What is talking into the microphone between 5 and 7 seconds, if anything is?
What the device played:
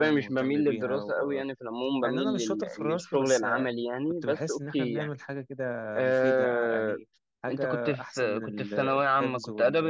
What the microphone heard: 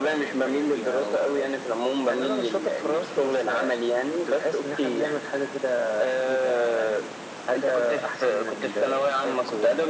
echo only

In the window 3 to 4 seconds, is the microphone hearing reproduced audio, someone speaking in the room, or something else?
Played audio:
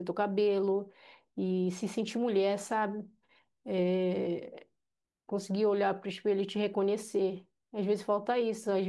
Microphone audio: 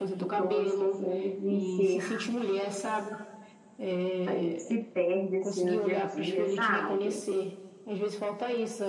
echo only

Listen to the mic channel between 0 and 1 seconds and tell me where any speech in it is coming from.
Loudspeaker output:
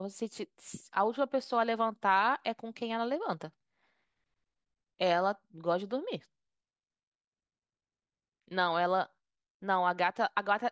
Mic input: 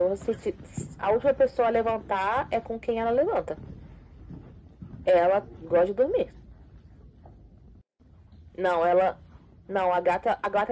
echo only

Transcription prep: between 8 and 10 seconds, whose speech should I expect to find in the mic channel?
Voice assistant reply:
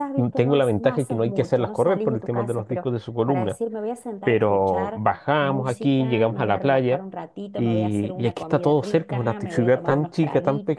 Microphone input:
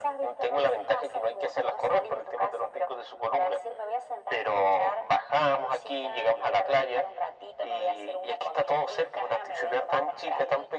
echo only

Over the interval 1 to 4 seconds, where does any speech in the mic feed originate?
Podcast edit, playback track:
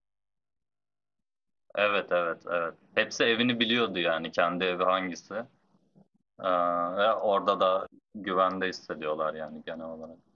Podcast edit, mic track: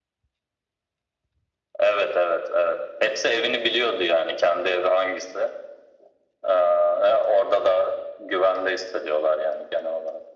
echo only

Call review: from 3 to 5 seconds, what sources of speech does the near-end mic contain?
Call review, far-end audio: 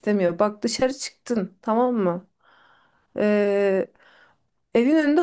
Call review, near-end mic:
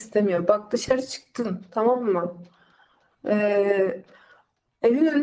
echo only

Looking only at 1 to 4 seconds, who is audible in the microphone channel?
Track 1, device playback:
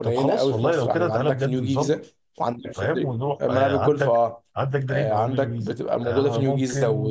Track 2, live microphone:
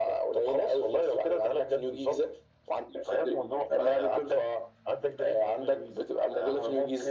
echo only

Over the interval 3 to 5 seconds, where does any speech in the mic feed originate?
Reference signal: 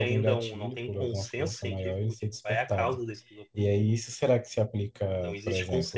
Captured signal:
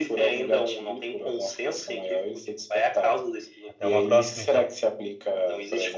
both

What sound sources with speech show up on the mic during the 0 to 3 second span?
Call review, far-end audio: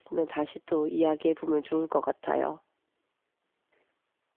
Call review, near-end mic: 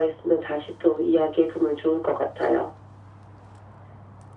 echo only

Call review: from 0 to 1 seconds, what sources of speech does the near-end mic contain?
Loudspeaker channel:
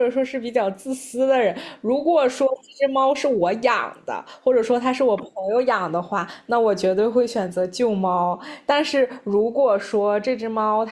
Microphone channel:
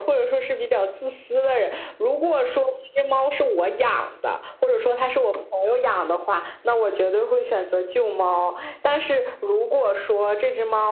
echo only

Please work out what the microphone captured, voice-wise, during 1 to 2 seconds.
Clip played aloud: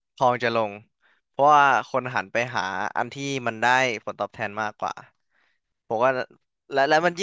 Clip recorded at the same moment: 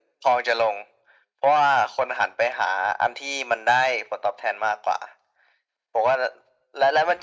echo only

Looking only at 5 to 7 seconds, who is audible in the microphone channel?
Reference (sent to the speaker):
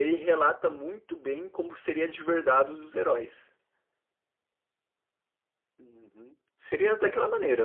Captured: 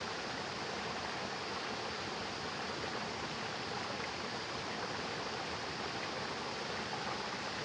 neither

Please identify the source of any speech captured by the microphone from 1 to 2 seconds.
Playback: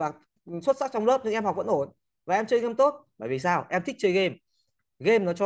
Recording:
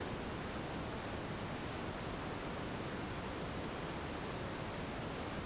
neither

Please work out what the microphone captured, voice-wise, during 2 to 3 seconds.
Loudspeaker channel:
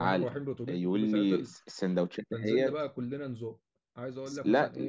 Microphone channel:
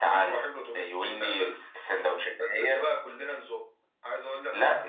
echo only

